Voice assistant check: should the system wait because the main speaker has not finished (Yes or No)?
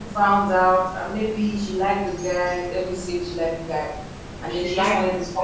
Yes